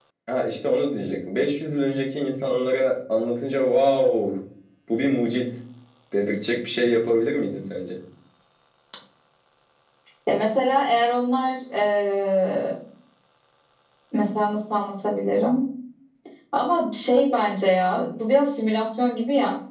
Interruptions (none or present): none